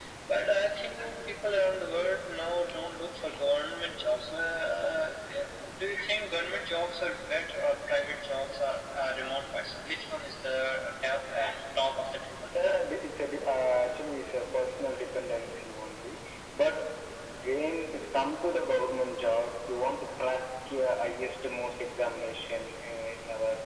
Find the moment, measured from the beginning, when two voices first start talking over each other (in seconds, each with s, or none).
none